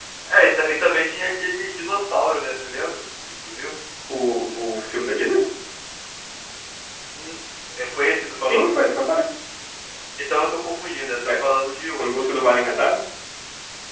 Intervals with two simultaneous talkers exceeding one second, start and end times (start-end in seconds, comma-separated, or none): none